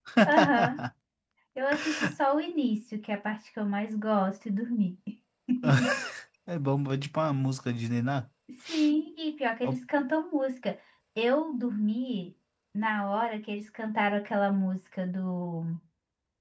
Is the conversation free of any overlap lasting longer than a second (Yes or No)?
Yes